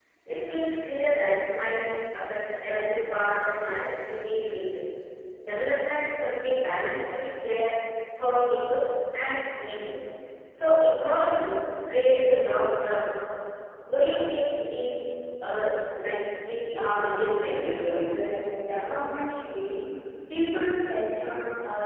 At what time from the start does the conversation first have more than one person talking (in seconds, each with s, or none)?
16.6 s